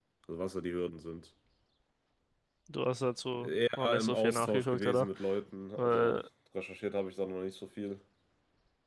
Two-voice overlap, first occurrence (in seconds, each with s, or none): 3.4 s